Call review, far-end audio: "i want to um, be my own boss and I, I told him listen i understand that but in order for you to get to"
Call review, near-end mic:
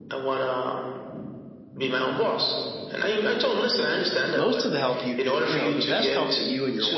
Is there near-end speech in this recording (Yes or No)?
Yes